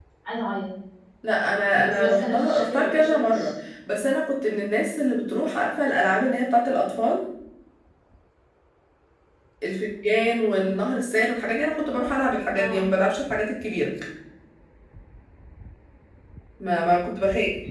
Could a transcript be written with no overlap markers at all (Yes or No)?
No